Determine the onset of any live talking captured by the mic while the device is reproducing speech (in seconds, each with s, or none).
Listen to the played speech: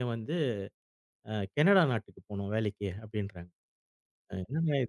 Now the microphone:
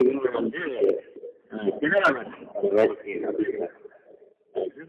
none